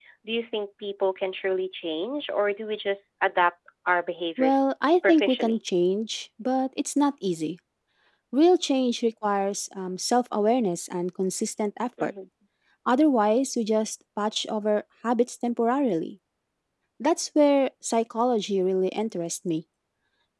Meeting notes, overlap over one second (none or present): present